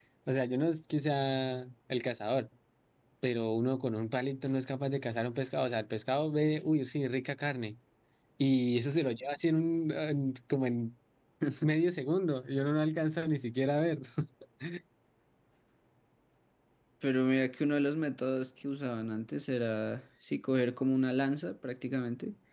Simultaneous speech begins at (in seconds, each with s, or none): none